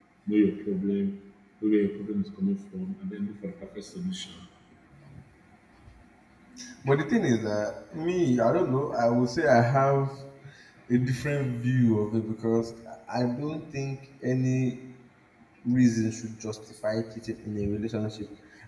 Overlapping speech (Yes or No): No